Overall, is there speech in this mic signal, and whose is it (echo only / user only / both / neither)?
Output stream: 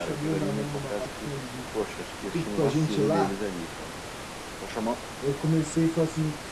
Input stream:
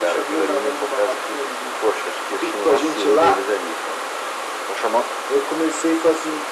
echo only